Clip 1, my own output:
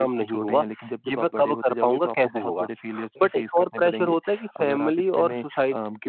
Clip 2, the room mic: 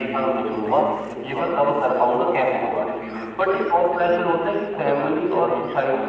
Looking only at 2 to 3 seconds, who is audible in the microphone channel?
echo only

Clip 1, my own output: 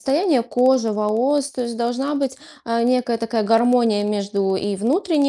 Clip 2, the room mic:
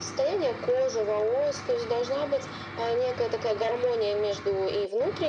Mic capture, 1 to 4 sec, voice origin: echo only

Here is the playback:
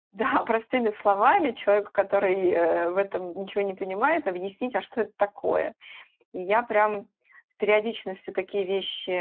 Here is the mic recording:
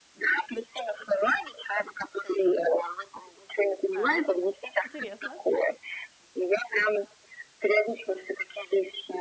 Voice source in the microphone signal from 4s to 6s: both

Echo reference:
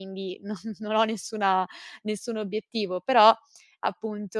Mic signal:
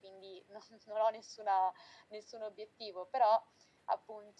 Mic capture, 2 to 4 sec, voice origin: echo only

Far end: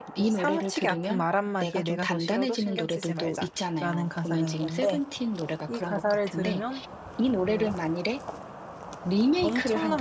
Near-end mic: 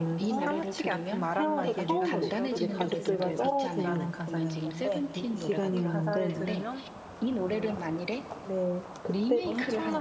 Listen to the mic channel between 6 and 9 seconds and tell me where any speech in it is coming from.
both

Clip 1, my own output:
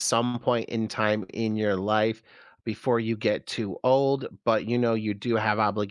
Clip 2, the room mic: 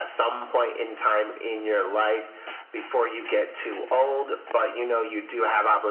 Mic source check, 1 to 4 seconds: echo only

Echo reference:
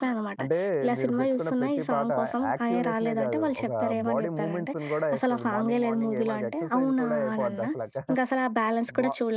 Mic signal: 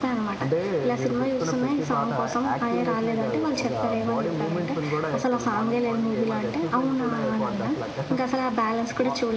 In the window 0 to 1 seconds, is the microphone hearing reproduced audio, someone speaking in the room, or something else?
echo only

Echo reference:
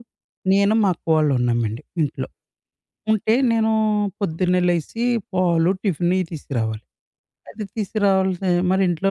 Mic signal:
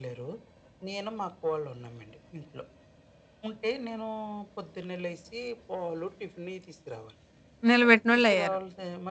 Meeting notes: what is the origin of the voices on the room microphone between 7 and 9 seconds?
both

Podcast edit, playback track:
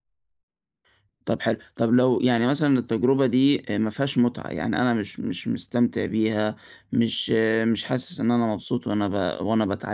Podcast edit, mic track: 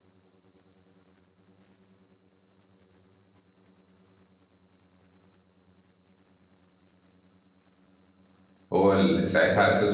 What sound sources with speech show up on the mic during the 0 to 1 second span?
neither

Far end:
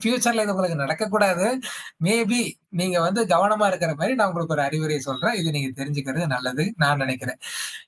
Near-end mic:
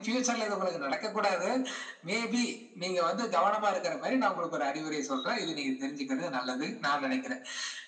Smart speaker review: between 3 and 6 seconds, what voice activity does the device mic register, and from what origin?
echo only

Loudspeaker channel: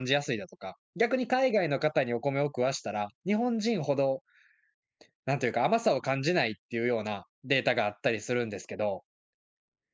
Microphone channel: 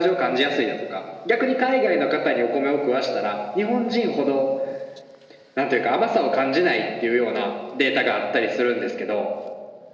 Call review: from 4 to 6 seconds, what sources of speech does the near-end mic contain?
echo only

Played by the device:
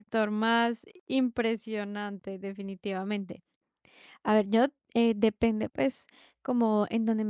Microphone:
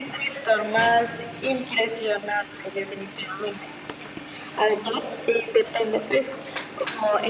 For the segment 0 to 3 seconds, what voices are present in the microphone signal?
echo only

